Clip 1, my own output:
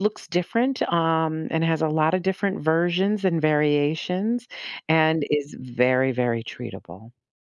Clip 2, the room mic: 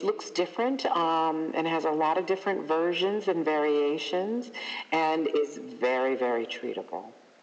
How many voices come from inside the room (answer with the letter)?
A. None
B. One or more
A